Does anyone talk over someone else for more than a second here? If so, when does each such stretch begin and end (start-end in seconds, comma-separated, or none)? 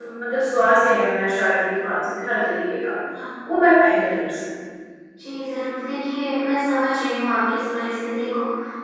none